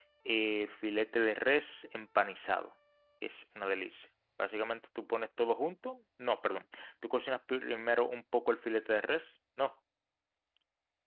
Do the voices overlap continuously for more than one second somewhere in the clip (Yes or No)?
No